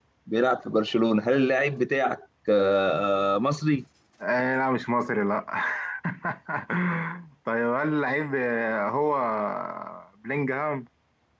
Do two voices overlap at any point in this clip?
No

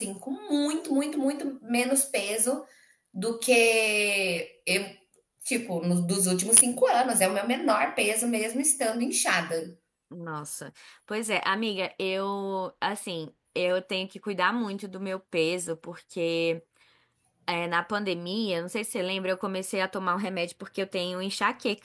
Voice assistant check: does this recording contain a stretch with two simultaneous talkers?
No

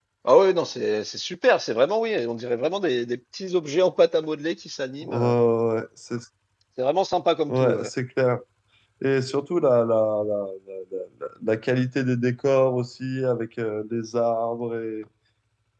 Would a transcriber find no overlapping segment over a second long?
Yes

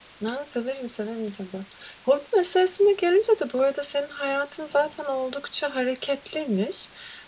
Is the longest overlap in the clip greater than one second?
No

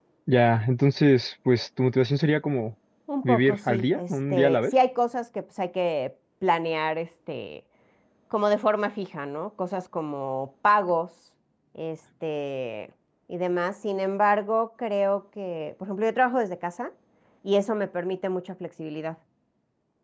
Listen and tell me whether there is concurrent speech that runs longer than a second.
Yes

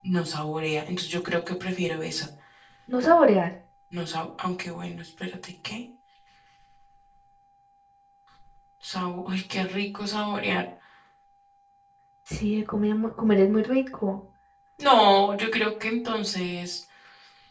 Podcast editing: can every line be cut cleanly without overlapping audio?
Yes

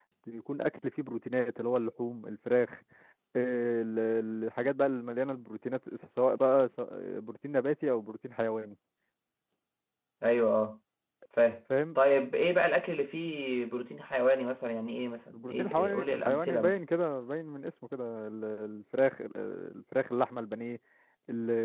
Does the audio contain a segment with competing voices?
Yes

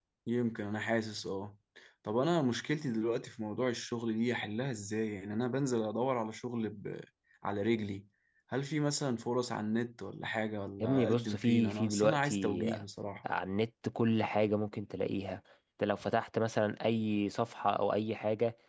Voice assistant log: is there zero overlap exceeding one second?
No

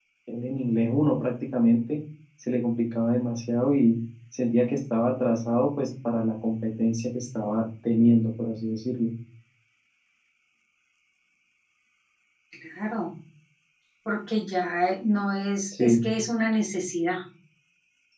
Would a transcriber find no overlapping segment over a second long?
Yes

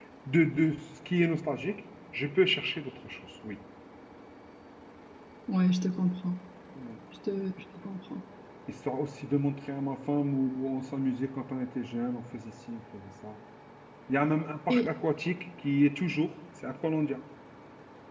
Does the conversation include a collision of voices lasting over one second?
No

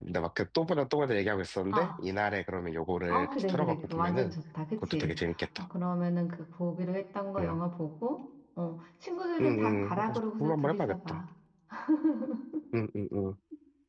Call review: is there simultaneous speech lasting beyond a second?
Yes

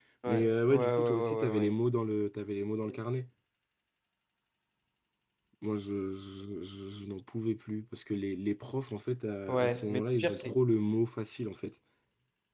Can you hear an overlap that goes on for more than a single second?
Yes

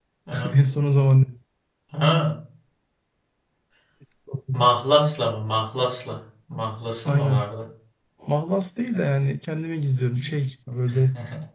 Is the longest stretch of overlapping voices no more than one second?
Yes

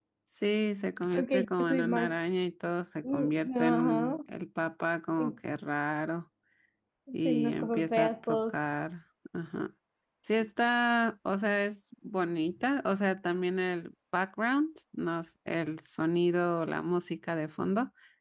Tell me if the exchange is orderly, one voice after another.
No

